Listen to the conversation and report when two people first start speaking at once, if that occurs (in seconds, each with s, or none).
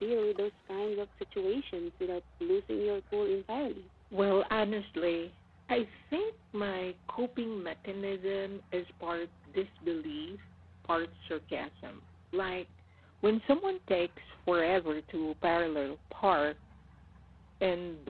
none